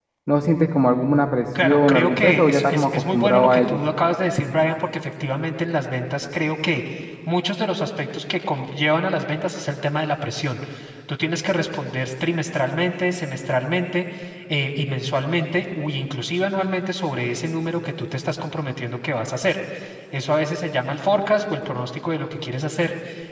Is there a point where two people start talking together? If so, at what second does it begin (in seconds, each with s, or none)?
1.6 s